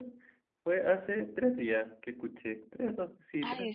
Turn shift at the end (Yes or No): Yes